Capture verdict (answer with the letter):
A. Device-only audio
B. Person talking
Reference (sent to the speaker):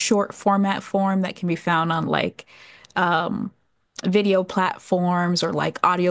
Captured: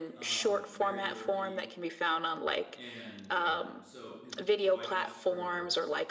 B